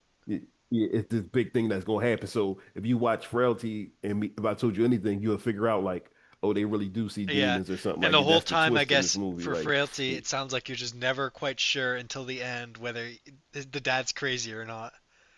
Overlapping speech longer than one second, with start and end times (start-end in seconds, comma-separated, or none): 8.0-10.2